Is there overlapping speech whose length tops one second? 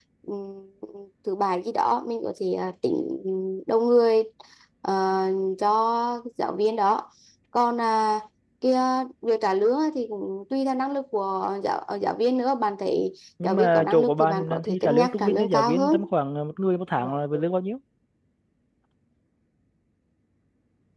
Yes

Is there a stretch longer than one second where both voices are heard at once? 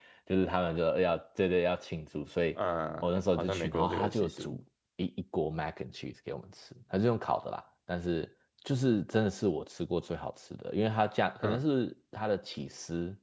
Yes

